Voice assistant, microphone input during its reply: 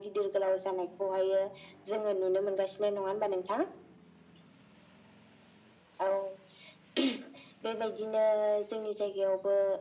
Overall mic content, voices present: echo only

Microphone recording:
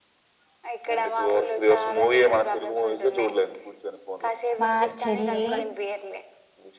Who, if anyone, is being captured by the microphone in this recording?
both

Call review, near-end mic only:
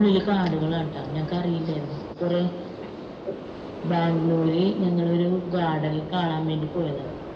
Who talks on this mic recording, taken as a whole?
echo only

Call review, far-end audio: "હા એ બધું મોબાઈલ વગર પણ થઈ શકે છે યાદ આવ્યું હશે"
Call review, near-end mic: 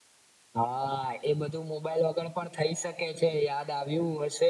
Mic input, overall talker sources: echo only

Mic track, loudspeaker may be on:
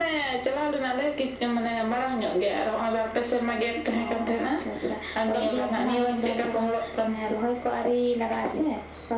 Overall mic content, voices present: echo only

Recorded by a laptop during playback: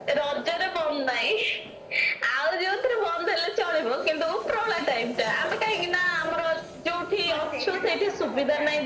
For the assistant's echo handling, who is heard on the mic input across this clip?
both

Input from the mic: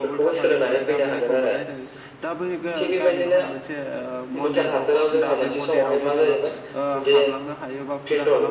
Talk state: both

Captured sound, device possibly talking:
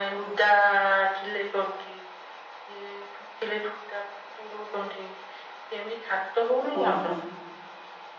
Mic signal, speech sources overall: both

